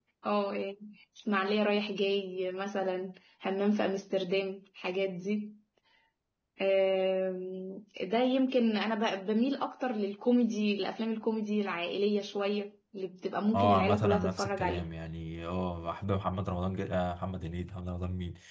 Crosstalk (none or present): present